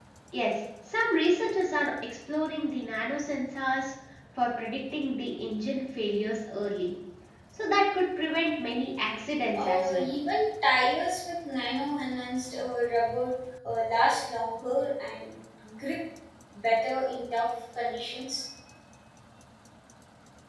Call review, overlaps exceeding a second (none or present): none